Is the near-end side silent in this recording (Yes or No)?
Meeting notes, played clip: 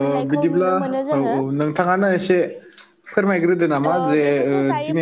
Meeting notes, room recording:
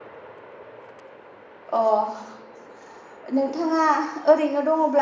No